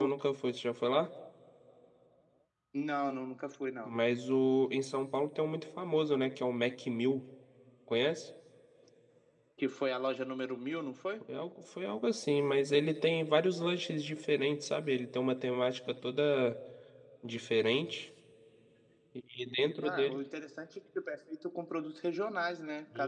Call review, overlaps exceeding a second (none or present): none